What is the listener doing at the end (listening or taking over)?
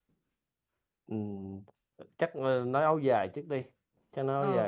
taking over